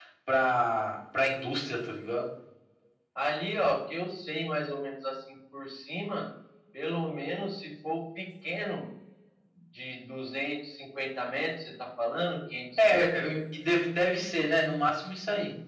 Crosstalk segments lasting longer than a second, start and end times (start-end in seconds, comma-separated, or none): none